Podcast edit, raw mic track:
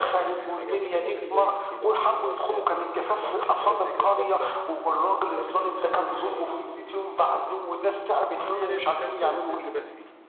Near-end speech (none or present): present